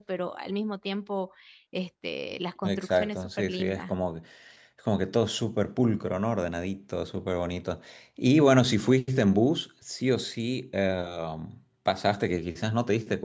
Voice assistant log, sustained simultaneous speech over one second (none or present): present